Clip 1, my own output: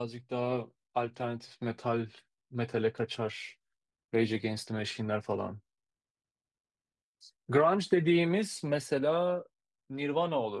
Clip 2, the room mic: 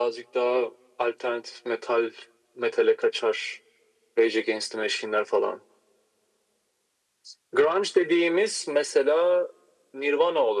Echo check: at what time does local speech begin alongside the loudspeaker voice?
none

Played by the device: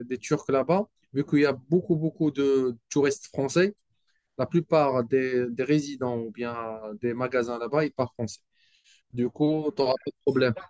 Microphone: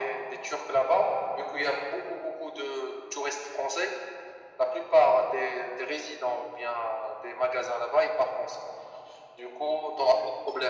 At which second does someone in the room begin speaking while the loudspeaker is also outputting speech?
none

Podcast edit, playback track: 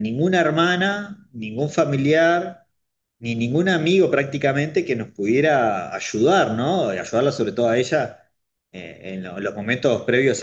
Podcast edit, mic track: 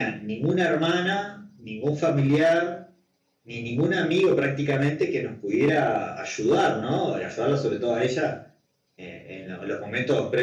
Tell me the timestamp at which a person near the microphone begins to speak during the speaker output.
none

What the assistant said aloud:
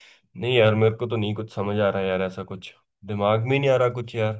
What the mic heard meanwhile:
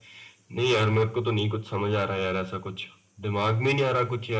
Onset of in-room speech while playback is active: none

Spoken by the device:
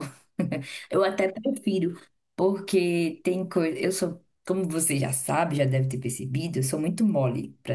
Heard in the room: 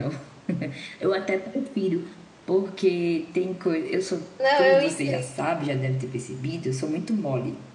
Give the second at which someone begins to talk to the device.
4.4 s

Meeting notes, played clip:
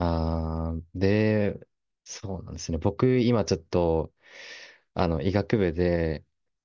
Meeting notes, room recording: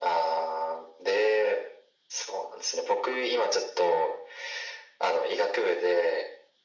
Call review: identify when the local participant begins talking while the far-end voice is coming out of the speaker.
none

